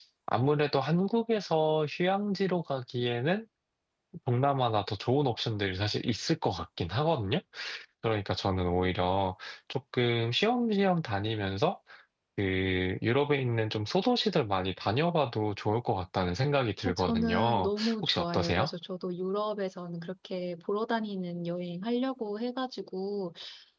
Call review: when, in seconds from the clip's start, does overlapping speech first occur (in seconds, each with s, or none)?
16.8 s